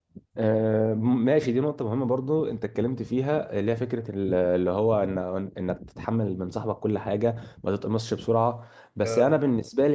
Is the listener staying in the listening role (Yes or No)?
Yes